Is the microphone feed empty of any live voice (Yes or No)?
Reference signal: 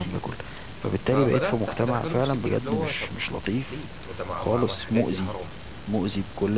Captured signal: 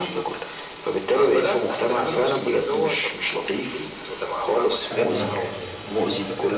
No